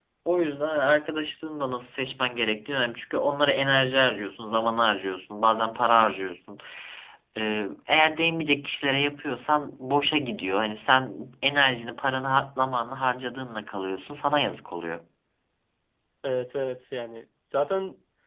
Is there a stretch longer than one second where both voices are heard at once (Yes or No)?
No